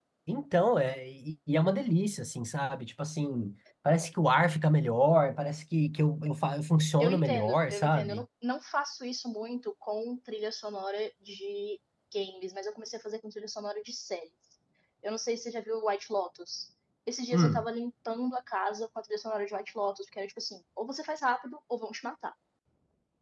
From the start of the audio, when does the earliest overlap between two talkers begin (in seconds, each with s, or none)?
7.0 s